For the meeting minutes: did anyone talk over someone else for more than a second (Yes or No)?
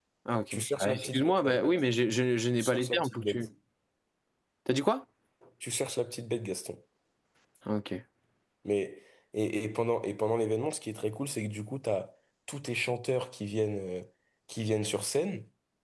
Yes